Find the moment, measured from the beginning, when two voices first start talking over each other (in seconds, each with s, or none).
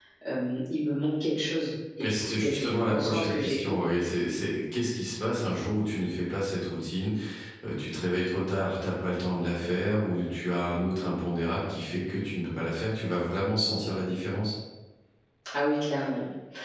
2.0 s